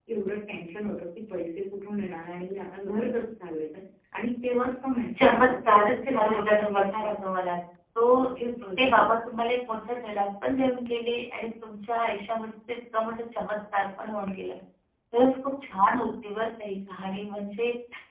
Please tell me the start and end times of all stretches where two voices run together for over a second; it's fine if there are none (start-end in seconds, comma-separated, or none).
5.2-7.1